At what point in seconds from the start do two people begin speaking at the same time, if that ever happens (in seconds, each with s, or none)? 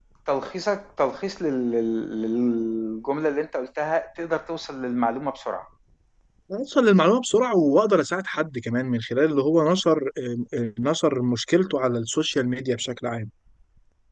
none